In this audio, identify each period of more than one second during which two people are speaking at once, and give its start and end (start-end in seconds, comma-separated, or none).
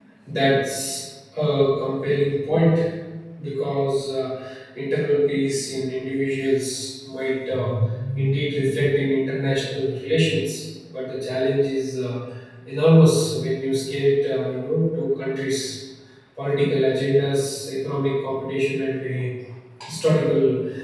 none